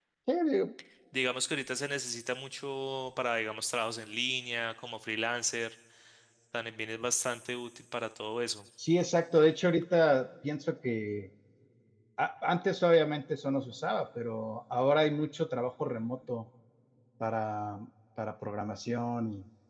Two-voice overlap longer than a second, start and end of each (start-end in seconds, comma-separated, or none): none